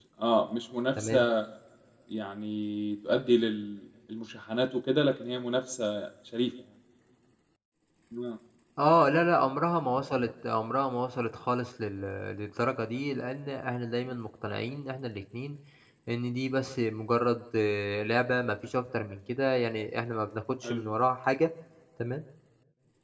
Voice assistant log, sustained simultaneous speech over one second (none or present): none